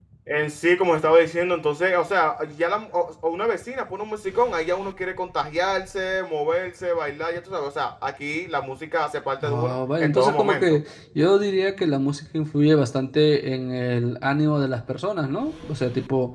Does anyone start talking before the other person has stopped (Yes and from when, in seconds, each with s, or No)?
Yes, from 9.4 s